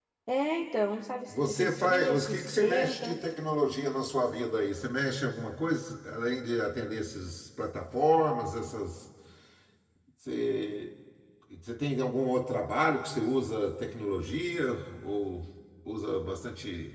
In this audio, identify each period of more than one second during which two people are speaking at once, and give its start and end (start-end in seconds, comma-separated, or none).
1.3-3.2